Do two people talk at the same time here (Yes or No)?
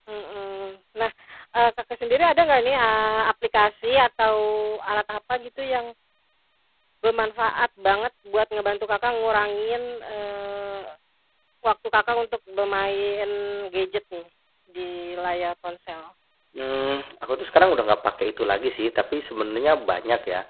No